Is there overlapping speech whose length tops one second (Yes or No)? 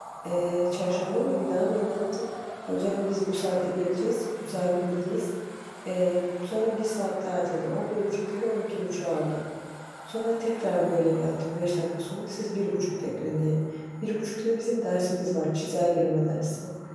No